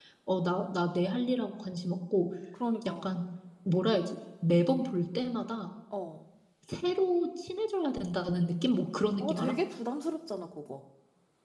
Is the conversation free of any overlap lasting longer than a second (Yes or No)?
Yes